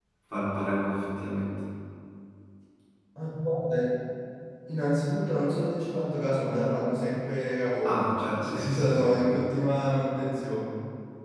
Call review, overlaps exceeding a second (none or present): present